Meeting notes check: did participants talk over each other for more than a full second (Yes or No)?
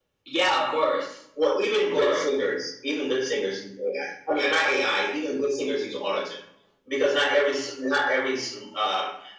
No